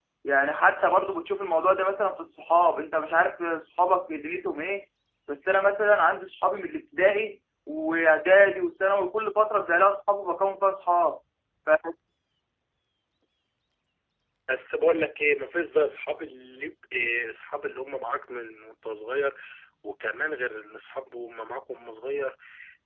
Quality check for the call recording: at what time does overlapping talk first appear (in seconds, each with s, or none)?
none